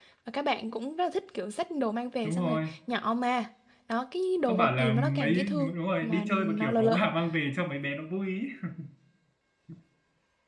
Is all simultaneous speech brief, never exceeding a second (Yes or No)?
No